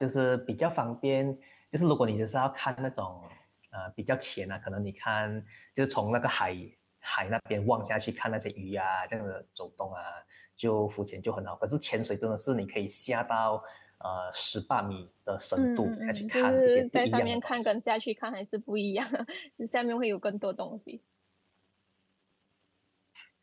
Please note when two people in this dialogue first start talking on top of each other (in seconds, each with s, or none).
15.6 s